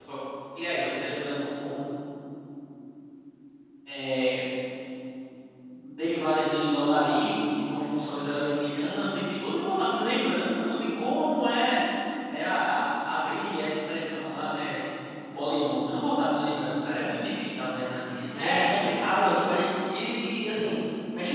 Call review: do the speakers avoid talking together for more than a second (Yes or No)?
Yes